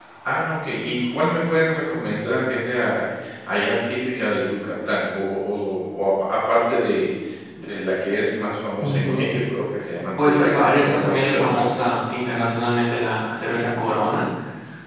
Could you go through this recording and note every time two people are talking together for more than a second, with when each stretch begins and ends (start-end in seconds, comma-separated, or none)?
10.2-11.7